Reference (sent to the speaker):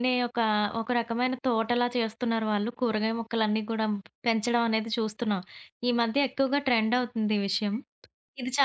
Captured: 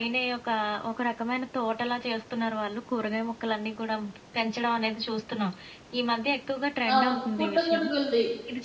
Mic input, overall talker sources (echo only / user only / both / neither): both